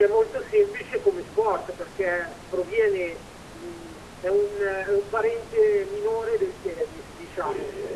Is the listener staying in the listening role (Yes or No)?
No